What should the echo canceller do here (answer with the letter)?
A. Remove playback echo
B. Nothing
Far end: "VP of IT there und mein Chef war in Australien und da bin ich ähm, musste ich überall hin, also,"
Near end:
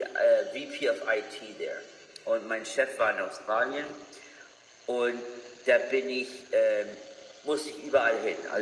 A